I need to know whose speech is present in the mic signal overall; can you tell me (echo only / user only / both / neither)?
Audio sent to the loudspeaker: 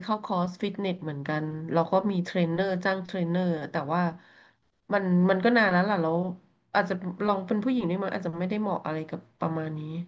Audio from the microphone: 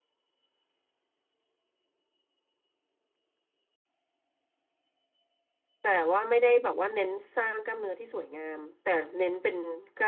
user only